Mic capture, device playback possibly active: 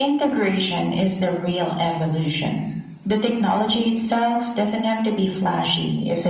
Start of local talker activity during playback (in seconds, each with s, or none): none